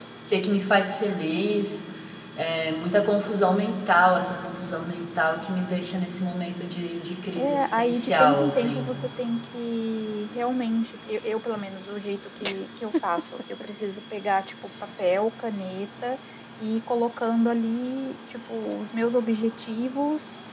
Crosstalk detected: Yes, from 7.4 s

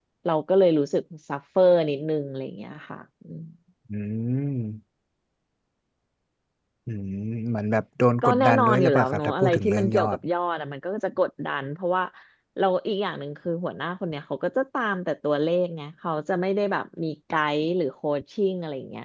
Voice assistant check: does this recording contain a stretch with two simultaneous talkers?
Yes, from 8.2 s

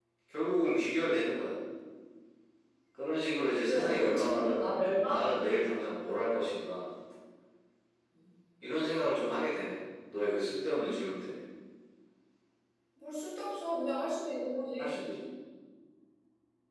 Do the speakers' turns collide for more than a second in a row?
Yes, from 3.7 s

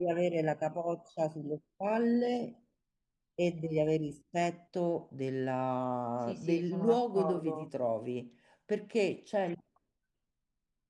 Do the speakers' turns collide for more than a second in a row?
Yes, from 6.2 s

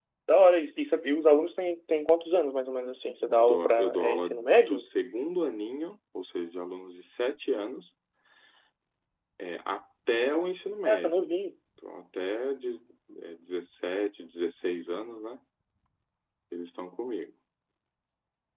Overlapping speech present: Yes, from 3.2 s

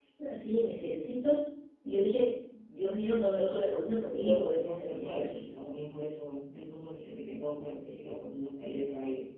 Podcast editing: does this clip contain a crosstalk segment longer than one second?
Yes, from 4.1 s

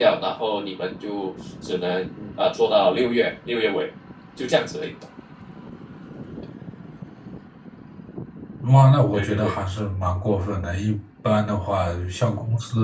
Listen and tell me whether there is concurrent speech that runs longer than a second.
No

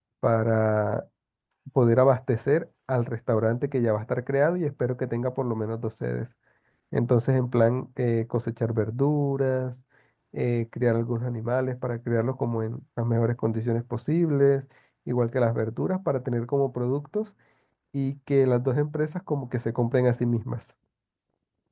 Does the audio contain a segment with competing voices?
No

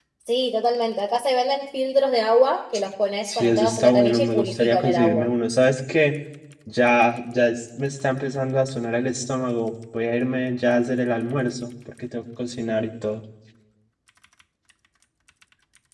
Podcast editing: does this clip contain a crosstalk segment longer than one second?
Yes, from 3.2 s

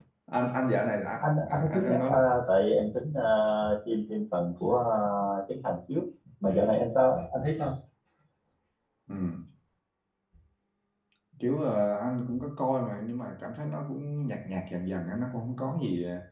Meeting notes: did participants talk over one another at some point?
Yes, from 0.8 s

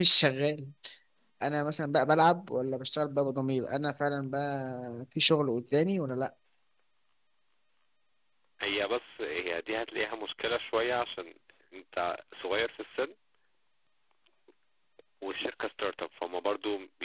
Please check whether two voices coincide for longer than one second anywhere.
No

